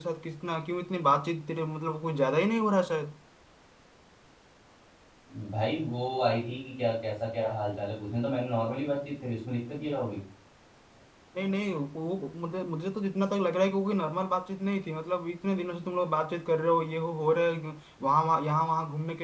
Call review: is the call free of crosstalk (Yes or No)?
Yes